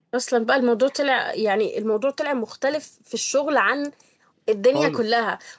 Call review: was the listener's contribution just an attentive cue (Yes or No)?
Yes